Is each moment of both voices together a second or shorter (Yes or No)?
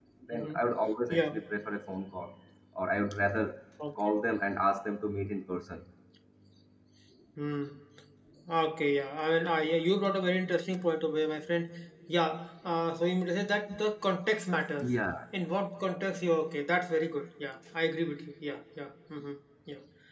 Yes